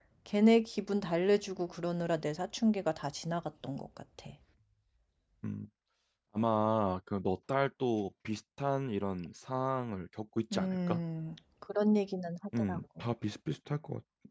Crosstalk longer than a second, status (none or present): none